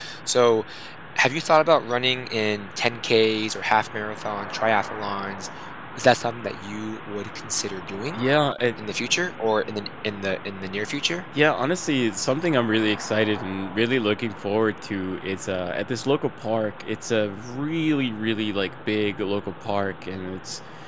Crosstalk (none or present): none